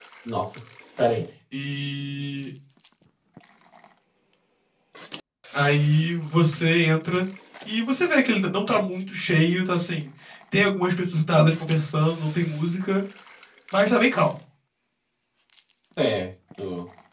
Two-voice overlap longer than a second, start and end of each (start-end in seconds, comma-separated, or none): none